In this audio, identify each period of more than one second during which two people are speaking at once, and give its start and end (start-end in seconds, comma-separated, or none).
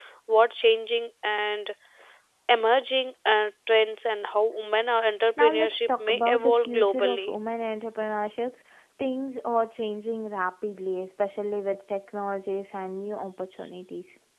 5.4-7.3